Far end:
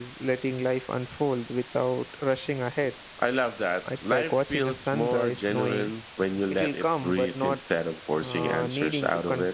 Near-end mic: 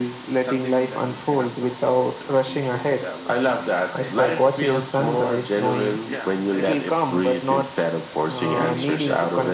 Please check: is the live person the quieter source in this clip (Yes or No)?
Yes